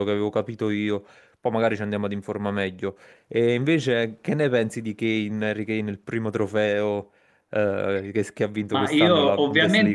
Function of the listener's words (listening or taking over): taking over